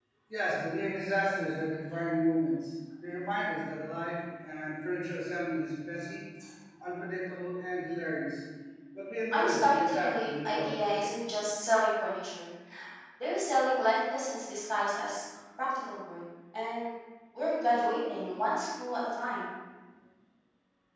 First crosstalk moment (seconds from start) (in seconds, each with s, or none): 9.3 s